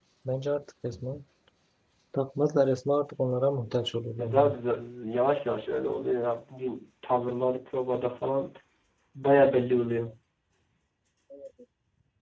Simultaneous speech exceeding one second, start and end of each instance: none

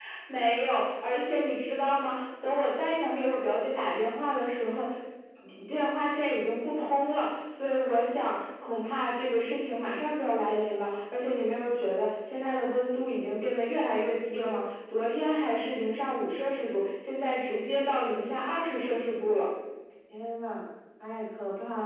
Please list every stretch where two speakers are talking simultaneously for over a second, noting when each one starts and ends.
none

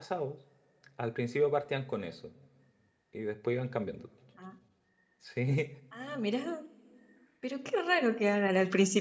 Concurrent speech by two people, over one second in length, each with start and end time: none

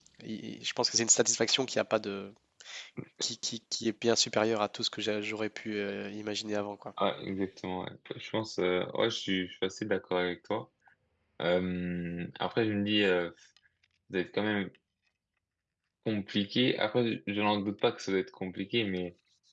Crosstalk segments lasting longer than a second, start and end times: none

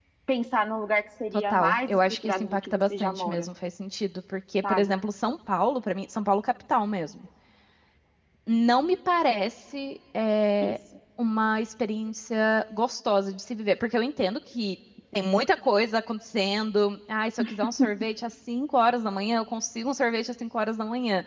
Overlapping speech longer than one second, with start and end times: 1.3-3.5

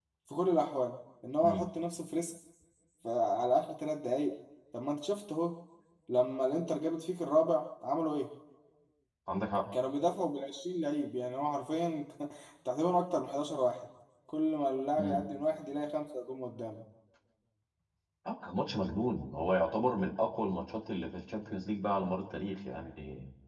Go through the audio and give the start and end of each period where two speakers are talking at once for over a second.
none

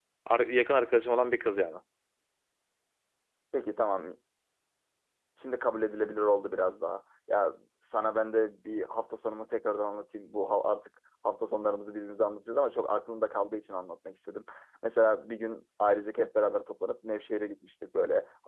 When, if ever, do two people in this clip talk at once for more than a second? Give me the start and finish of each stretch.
none

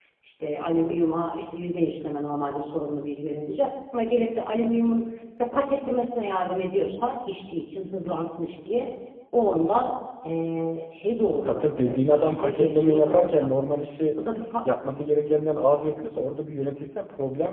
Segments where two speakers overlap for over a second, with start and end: 11.4-13.5

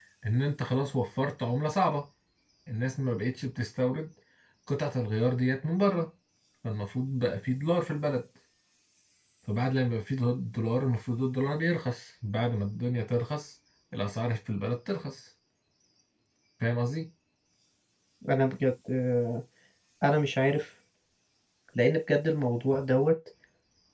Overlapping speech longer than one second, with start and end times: none

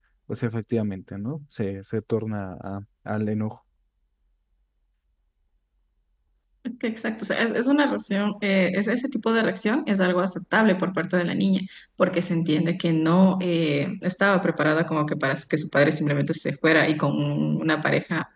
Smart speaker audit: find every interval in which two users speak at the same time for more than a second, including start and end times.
none

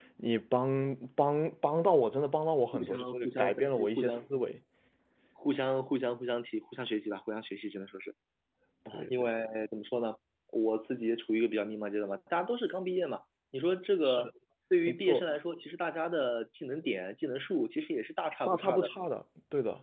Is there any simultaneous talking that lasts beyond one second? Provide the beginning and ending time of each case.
2.7-4.3

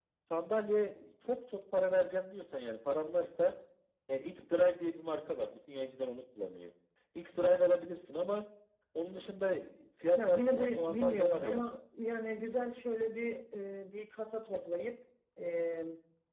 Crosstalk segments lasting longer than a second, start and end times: 10.1-11.8

